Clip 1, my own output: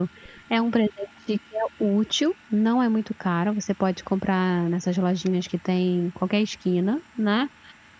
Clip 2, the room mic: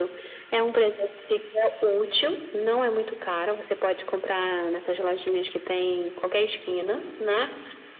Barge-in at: none

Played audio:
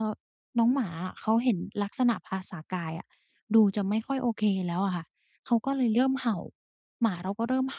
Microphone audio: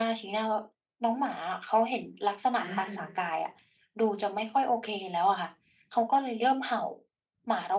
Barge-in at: 2.6 s

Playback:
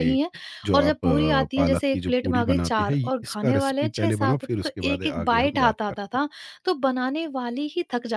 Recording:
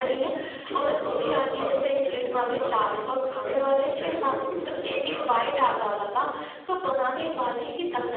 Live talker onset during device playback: none

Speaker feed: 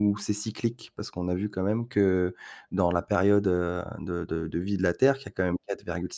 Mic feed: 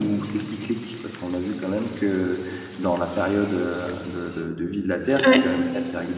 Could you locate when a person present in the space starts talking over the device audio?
5.2 s

